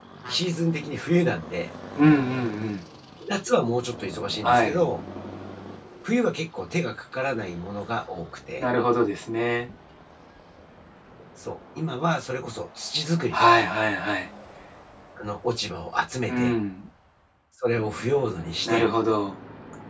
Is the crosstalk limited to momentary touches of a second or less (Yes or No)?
Yes